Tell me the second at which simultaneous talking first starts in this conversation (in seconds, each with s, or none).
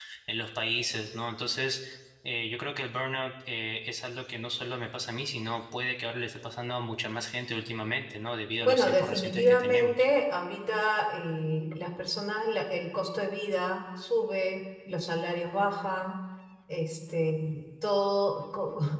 8.6 s